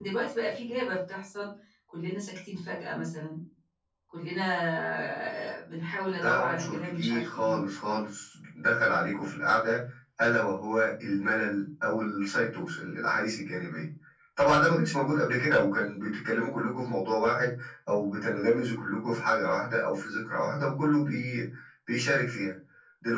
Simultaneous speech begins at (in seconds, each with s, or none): 6.2 s